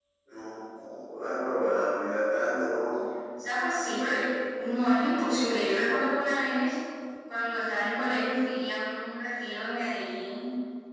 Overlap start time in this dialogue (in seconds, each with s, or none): none